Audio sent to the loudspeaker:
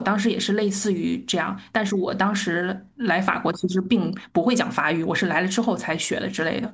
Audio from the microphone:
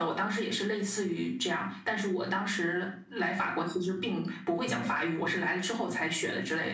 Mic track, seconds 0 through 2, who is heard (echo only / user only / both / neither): echo only